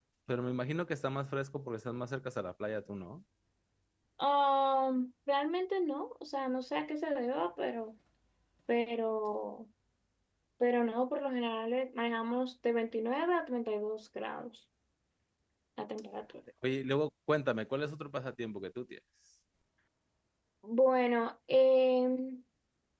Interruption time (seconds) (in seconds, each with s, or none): none